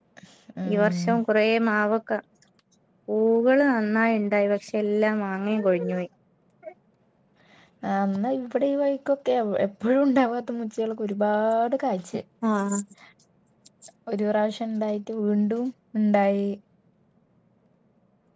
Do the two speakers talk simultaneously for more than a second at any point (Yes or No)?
No